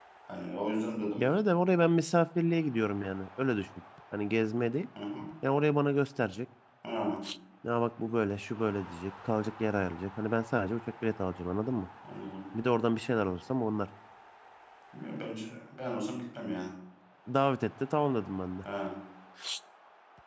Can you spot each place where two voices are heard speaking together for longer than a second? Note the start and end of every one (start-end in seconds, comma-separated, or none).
none